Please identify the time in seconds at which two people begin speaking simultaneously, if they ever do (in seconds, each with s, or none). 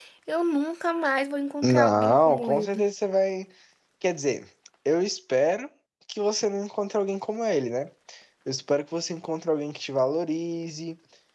1.6 s